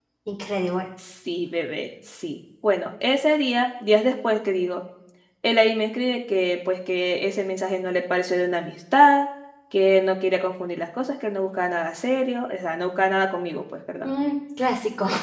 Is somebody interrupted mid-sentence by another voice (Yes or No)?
No